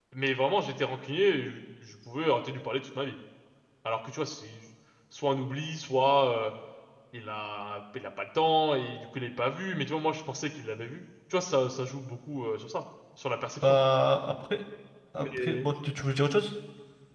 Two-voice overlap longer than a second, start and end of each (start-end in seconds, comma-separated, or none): none